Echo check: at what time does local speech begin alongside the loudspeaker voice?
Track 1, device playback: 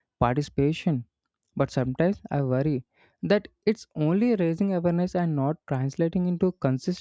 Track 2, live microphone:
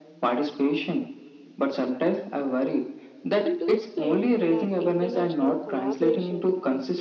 3 s

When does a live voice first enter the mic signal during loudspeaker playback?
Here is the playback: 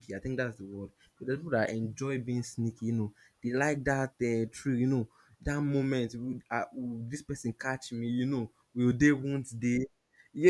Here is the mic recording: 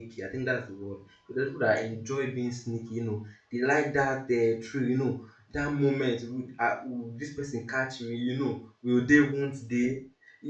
none

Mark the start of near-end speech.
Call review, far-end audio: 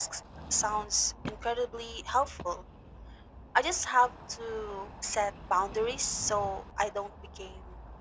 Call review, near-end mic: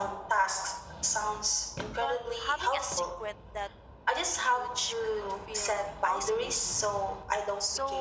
2 s

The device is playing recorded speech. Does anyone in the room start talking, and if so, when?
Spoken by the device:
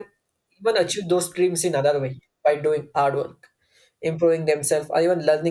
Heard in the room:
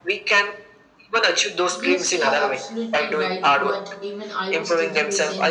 2 s

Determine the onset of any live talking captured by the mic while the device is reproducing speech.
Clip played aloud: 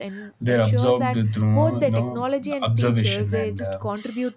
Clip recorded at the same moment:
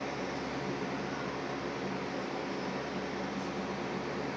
none

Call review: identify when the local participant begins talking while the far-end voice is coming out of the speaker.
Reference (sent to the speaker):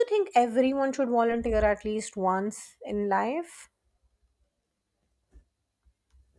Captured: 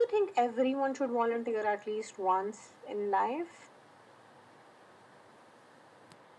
none

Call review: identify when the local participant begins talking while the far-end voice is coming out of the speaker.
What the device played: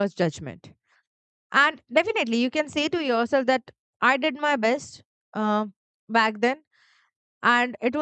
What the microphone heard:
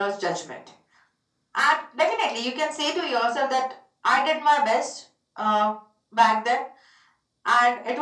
none

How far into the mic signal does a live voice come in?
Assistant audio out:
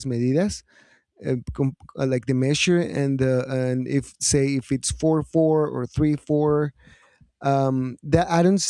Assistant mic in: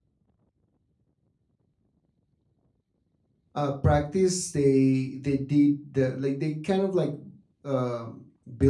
4 s

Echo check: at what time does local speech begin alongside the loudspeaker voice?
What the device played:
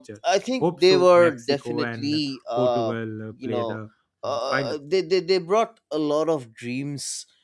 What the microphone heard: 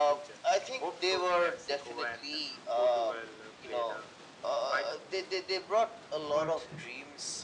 6 s

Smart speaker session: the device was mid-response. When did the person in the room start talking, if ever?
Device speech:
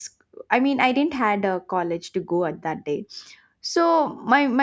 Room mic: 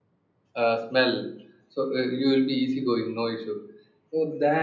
1 s

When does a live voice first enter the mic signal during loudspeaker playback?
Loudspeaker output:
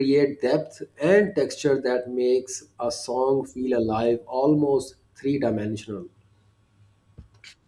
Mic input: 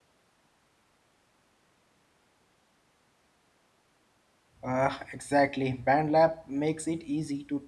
5 s

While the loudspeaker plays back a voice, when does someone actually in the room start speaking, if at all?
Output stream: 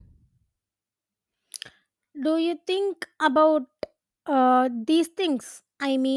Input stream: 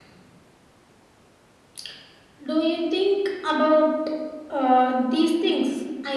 none

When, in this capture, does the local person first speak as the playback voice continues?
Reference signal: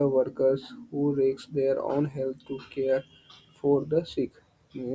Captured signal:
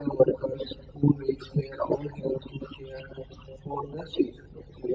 none

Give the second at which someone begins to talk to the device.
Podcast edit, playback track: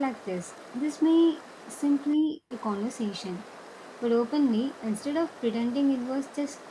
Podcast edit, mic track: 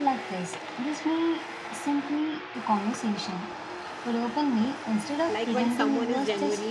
5 s

